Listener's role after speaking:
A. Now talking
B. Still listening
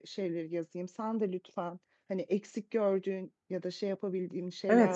A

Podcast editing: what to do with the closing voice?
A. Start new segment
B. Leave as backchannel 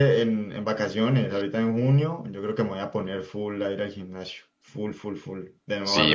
A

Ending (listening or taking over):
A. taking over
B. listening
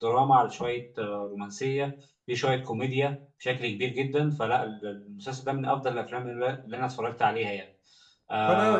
A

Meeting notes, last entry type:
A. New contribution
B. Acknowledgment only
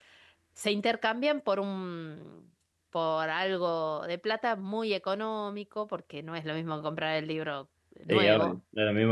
A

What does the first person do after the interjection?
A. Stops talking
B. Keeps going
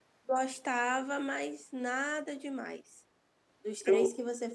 B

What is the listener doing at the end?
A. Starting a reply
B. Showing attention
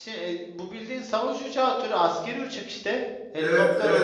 A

